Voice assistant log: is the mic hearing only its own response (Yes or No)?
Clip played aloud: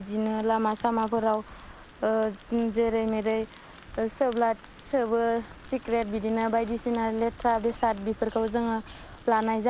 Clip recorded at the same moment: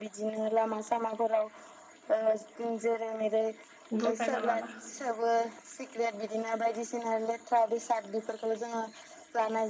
No